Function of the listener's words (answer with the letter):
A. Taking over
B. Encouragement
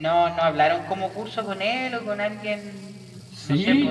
A